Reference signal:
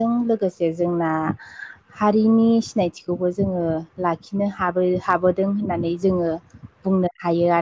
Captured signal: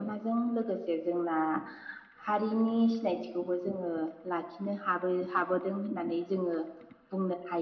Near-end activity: none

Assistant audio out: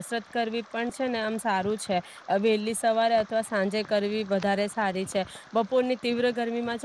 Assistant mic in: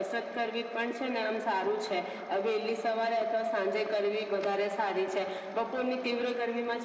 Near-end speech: none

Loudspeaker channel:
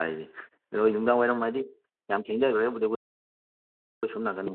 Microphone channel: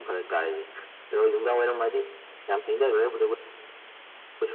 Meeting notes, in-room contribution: none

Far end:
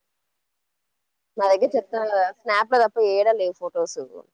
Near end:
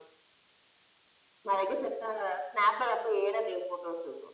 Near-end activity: none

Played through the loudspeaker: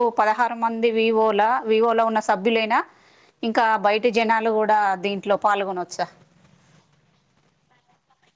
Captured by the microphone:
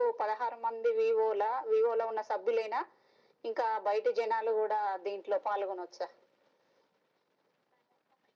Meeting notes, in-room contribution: none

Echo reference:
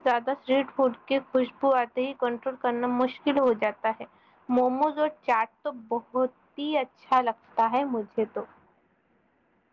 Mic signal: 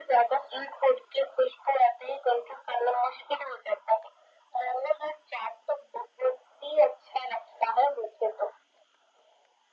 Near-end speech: none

